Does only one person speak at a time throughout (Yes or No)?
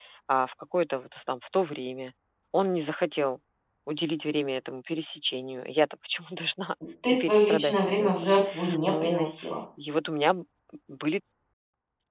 No